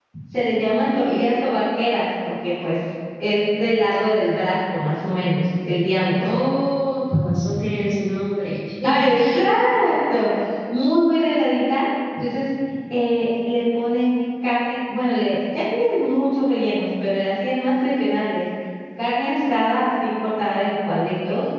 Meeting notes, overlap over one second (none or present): none